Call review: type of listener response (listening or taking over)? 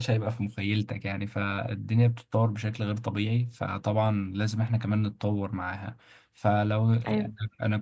listening